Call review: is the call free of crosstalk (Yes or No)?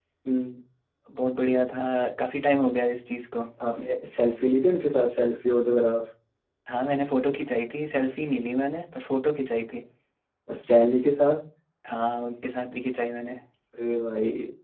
Yes